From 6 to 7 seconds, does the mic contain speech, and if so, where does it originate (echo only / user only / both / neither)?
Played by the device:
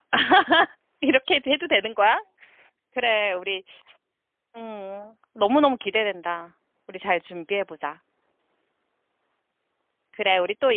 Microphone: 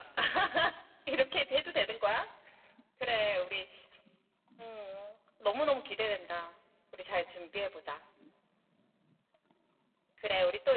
echo only